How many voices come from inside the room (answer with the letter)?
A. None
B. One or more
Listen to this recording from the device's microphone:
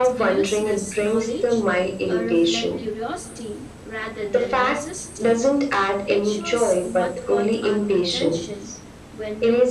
B